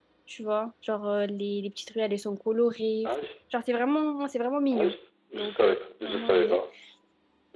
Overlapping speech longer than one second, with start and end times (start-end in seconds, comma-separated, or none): 5.3-6.6